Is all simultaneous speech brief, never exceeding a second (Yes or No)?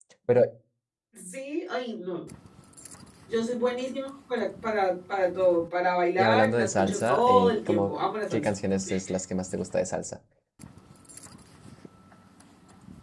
No